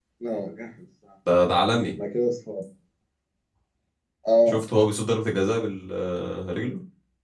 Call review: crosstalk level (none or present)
none